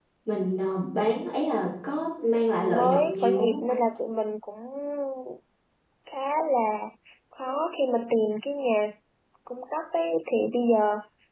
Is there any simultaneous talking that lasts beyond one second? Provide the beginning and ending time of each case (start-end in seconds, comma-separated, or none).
2.2-3.9